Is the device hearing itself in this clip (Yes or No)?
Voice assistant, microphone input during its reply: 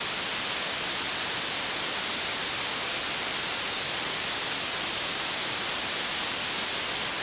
No